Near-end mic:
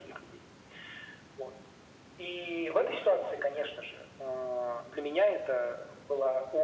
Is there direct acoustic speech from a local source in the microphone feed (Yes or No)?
No